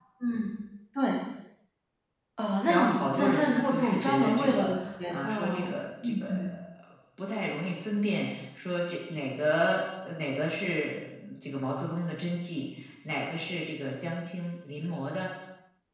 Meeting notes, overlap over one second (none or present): present